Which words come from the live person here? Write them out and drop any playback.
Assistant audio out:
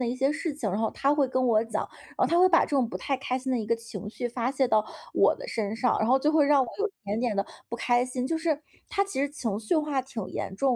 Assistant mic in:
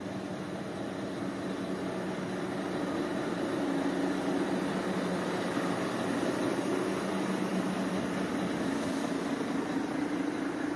none

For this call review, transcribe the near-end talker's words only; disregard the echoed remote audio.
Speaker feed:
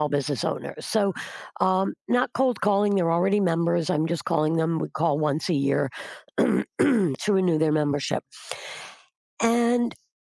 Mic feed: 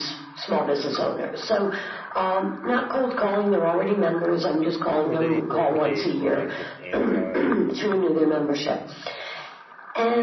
Were they were were they going just anti

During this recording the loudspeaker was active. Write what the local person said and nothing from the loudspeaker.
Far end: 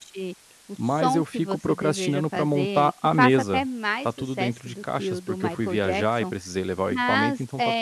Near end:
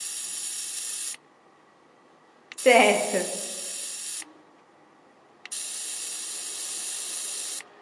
Certo.

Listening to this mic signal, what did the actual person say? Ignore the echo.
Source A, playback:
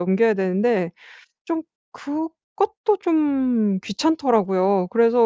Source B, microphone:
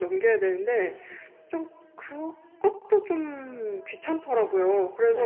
none

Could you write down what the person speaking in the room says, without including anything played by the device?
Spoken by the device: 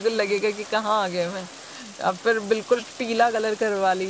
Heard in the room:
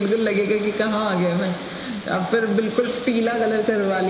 none

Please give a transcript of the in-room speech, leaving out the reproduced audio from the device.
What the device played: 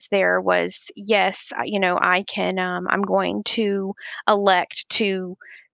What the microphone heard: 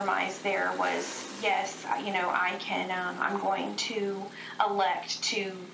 none

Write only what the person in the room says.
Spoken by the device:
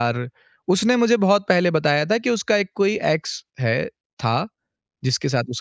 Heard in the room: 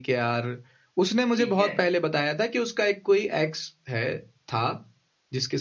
ठीक है,

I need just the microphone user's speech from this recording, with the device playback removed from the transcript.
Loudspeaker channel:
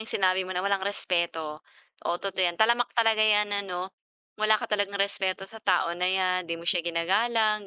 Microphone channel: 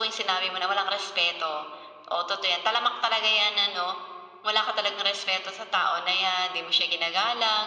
none

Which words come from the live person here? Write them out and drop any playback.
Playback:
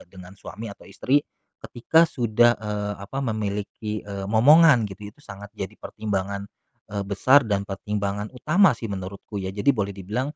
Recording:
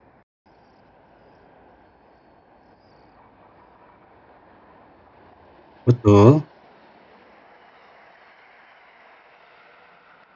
betul.

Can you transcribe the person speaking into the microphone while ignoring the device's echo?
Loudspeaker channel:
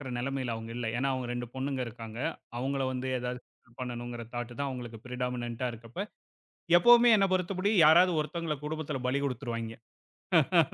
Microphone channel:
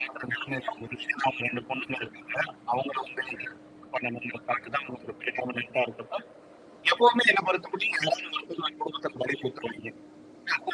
none

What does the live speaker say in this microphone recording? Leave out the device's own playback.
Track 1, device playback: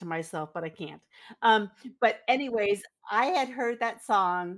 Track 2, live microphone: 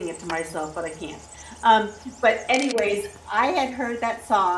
none

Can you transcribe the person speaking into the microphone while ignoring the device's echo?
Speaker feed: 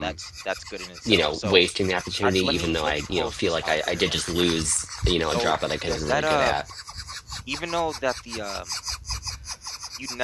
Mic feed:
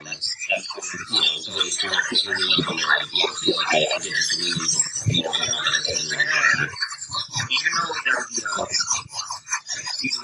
none

